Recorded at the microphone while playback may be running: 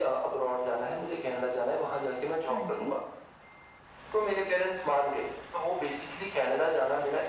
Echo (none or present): present